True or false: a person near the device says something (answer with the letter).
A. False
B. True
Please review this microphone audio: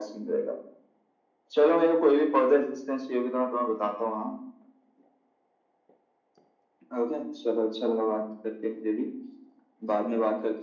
A